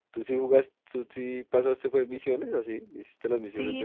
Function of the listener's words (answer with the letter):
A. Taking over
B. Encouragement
A